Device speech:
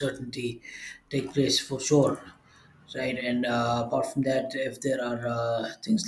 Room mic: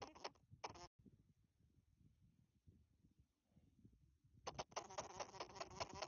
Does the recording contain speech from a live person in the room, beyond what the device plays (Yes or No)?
No